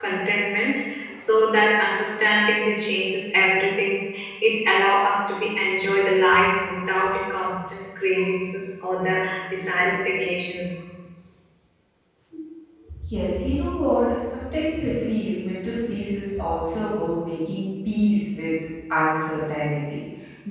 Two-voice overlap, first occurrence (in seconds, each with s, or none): none